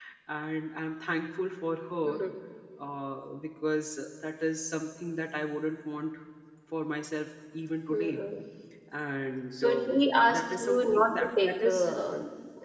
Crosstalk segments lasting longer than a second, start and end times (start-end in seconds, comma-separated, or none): 9.5-11.9